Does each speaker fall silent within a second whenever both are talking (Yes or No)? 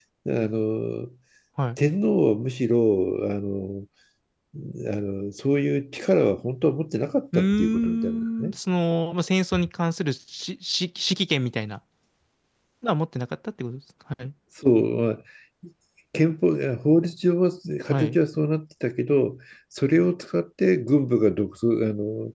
No